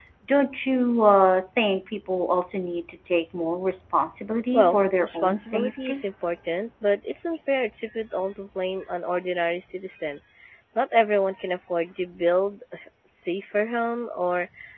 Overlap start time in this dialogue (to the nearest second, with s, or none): 5 s